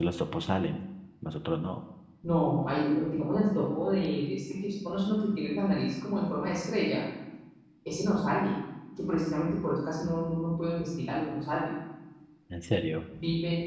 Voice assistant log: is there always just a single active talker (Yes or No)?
Yes